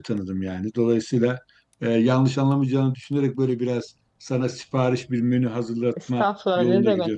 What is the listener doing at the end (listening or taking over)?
taking over